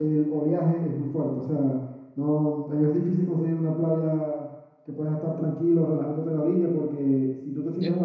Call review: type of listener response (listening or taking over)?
listening